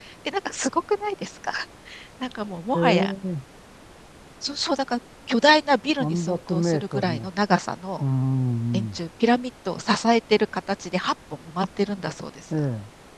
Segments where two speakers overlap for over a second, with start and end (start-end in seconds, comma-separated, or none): 6.0-7.3